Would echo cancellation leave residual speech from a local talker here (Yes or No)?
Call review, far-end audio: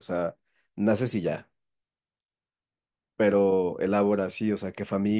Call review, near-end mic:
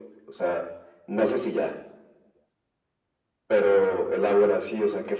No